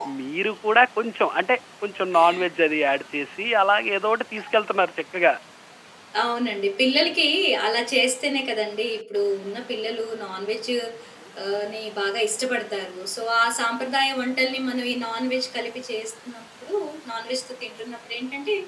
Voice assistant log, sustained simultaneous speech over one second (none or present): none